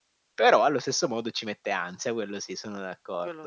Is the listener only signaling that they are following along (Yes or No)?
No